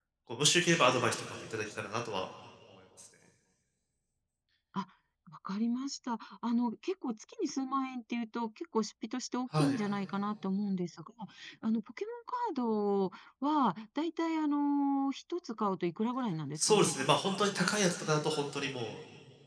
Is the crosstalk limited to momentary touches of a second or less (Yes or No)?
Yes